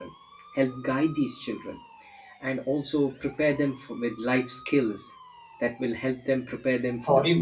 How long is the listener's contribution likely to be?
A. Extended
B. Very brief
A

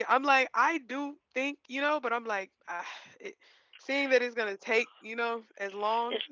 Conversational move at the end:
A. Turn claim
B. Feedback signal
A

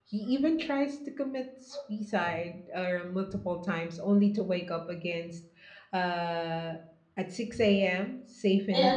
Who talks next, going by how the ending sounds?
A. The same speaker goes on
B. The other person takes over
A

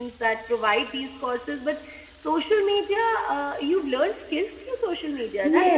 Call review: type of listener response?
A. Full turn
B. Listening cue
A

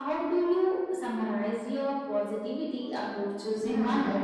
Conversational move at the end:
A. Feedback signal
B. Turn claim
B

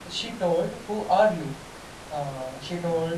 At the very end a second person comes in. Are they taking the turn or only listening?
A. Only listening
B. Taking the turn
A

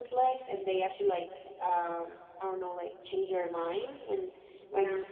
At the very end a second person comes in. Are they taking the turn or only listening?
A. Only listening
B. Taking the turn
A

